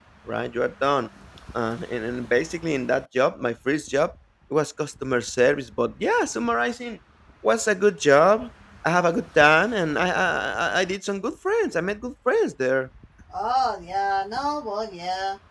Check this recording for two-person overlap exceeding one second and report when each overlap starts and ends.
none

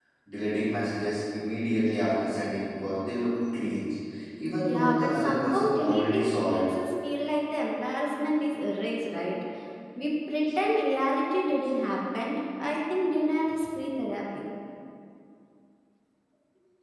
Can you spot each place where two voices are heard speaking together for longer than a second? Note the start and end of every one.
4.6-6.6

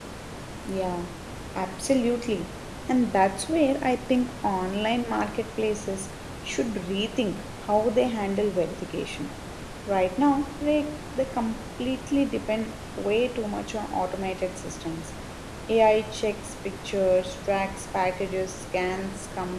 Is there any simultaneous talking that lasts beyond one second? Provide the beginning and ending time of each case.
none

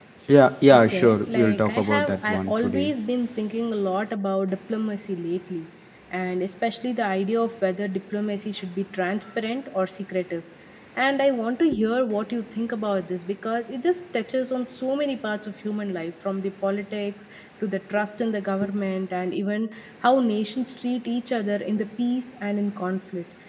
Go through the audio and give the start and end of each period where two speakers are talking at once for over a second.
0.7-2.9

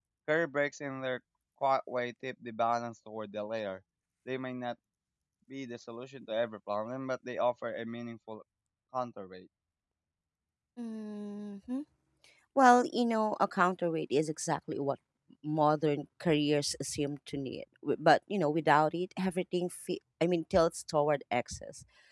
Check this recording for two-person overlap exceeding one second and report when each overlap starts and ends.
none

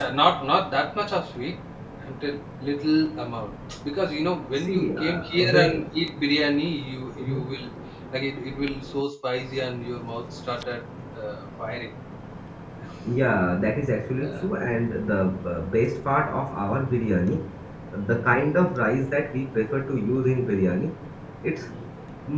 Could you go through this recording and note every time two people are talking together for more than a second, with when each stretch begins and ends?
4.7-5.9

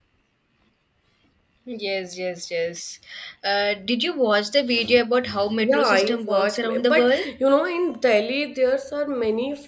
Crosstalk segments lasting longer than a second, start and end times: 5.6-7.3

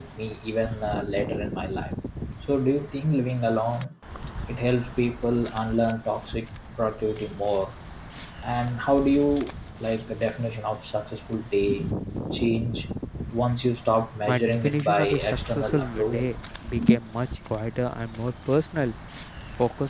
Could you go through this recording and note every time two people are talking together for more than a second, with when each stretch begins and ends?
14.2-16.3

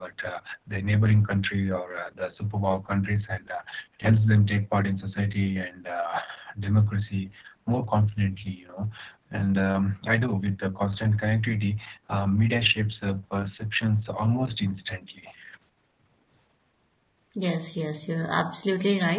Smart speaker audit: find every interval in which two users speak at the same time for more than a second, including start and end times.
none

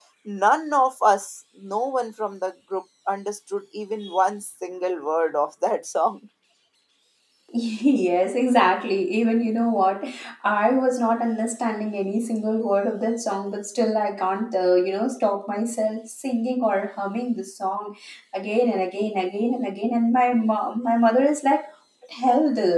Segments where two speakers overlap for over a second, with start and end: none

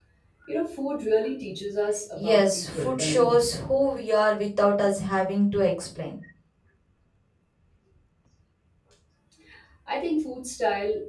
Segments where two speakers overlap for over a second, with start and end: 2.2-3.6

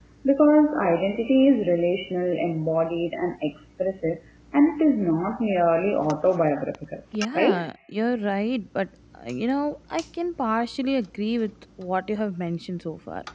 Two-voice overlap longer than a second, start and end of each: none

